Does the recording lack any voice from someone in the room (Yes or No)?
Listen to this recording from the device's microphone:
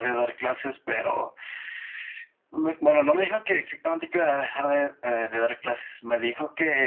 Yes